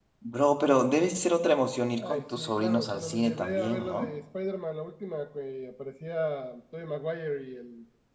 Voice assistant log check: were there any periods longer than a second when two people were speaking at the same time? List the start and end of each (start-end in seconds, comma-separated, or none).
2.0-4.1